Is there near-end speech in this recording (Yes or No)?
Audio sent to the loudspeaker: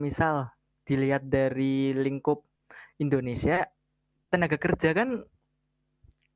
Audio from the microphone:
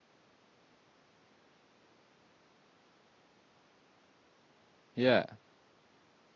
Yes